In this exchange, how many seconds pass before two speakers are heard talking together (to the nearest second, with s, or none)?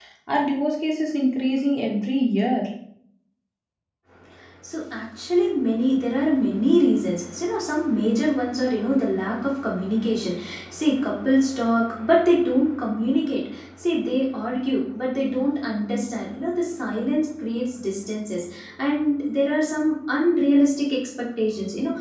none